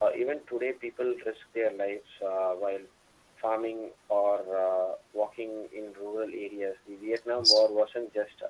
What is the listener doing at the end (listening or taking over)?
listening